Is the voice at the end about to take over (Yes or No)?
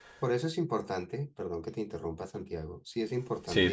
No